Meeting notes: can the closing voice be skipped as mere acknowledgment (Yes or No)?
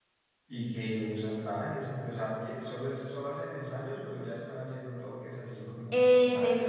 No